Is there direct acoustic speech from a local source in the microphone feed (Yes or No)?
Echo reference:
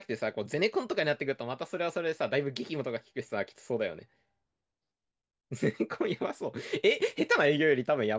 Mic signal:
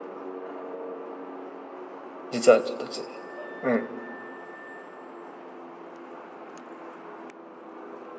Yes